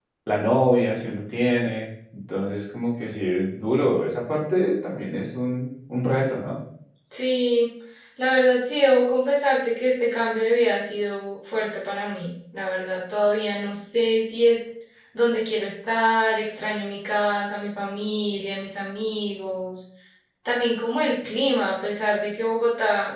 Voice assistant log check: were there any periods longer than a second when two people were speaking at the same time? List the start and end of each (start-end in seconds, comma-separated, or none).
none